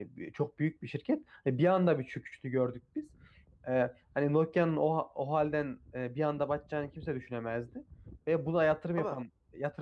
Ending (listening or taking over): listening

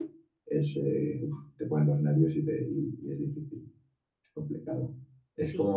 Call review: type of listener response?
listening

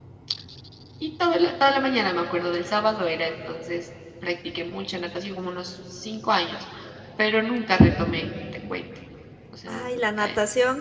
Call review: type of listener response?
taking over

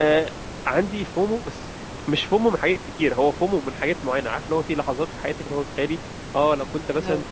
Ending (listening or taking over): listening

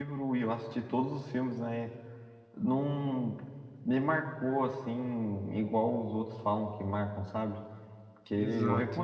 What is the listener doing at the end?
listening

